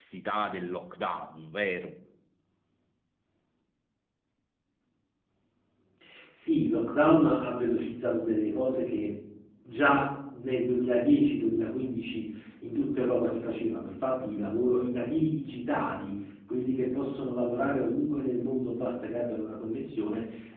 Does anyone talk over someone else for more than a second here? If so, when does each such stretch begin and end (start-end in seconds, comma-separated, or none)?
none